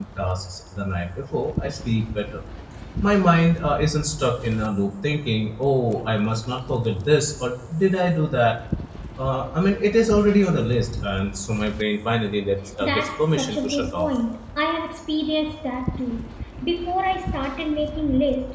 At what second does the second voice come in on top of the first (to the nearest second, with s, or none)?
13 s